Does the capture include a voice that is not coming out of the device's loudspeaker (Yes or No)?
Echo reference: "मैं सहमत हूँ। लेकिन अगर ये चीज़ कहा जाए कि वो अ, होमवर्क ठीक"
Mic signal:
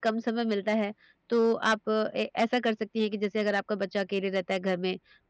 Yes